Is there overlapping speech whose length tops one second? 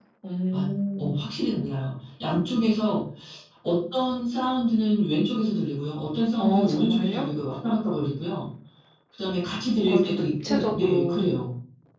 Yes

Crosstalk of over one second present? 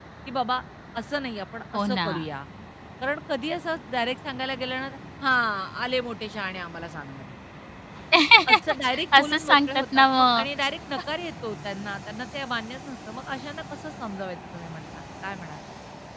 Yes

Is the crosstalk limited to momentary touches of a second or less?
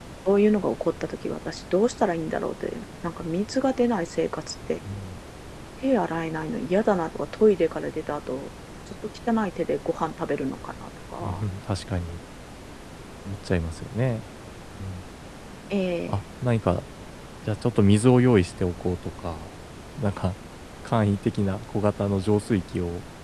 Yes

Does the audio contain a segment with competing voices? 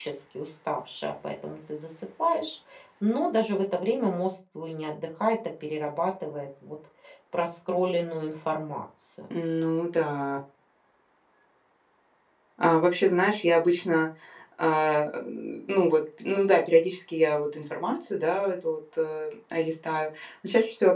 No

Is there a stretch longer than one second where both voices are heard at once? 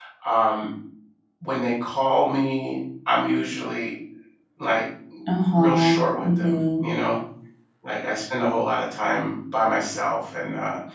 Yes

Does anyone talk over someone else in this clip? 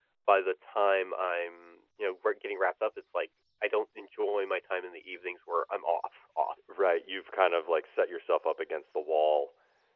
No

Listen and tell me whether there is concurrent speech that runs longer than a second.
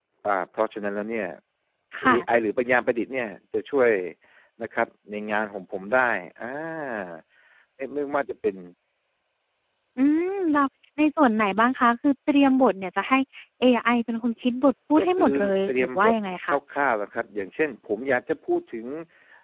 Yes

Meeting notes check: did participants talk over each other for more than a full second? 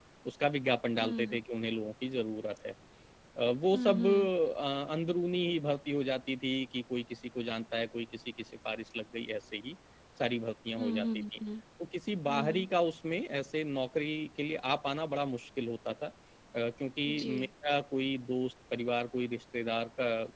No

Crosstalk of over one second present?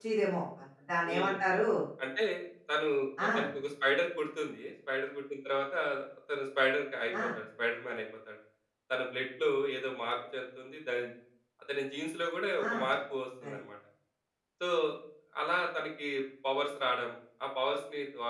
No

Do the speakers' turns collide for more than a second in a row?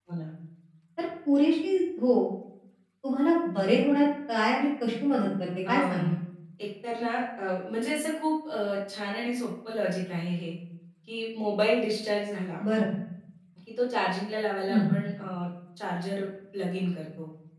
No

